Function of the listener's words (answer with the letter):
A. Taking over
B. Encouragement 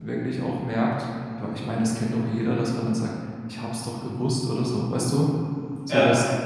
B